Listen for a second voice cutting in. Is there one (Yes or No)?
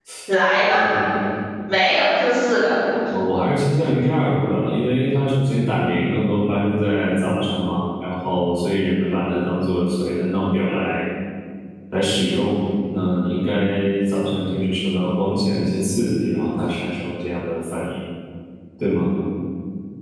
No